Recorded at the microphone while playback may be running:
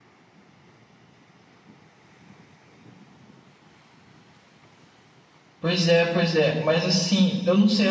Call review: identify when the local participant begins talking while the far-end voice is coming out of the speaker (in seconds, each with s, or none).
5.6 s